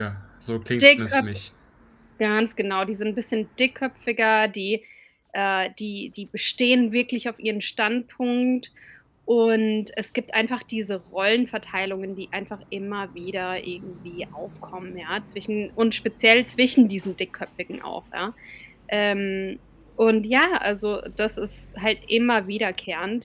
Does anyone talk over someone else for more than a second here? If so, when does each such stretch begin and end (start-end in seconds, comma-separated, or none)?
none